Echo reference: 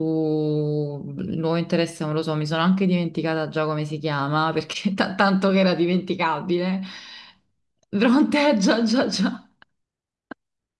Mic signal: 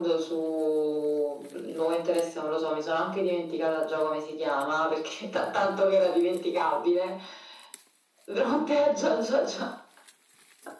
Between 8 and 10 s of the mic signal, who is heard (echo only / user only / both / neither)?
echo only